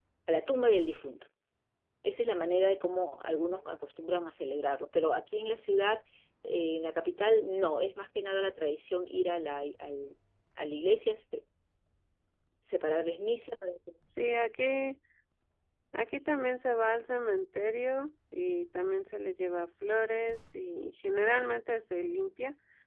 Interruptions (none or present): none